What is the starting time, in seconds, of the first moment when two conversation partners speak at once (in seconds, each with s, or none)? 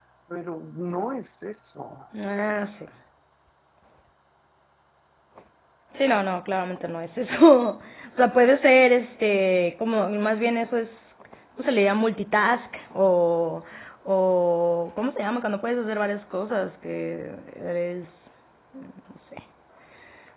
none